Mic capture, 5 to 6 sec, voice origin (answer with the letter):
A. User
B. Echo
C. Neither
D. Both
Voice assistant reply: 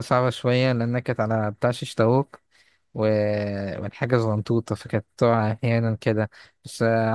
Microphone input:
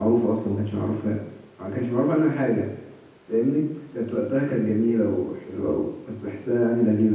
A